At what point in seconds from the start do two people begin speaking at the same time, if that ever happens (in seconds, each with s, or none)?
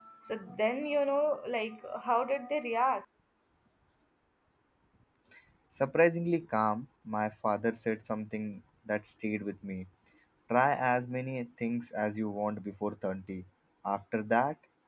none